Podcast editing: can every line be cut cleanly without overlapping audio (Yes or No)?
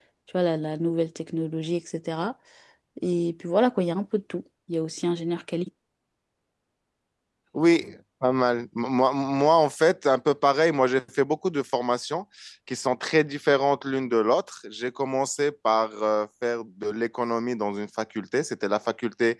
Yes